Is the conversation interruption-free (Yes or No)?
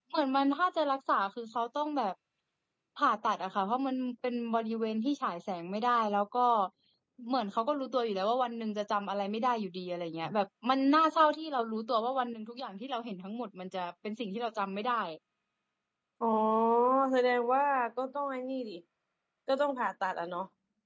Yes